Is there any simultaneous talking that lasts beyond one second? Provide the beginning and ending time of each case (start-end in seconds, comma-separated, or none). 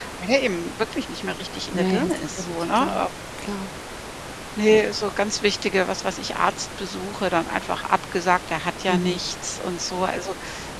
1.7-3.0